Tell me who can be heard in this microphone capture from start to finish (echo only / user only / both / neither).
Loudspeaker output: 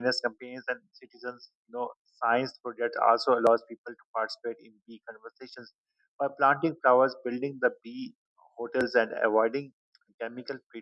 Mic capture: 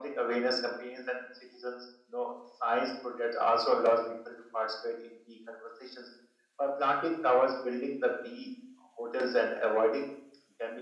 echo only